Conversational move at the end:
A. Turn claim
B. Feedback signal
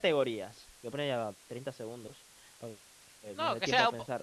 A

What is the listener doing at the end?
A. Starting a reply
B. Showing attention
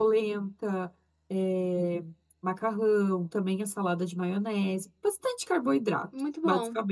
A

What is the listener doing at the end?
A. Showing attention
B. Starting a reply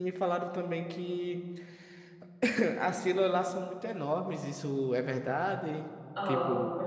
B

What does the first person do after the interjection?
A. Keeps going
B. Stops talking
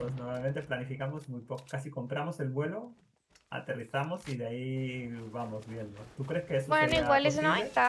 B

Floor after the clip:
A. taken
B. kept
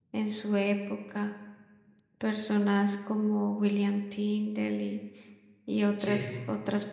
B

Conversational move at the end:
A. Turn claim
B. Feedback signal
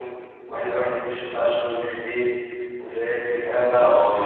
A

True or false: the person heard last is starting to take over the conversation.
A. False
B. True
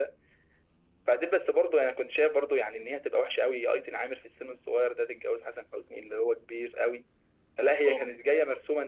A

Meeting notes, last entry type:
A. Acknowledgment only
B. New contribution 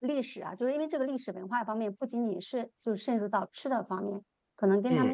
A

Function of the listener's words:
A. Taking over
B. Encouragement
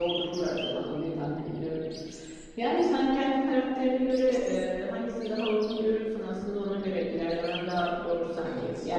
B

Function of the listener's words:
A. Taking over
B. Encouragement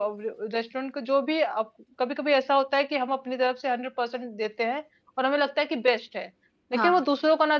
B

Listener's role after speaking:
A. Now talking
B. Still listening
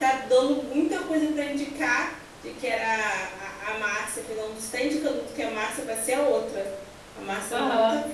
B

